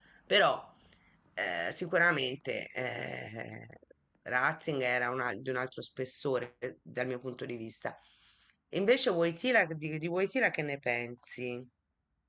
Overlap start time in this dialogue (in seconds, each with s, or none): none